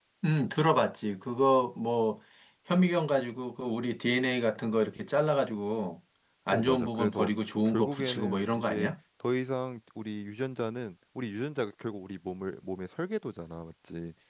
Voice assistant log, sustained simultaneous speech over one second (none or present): present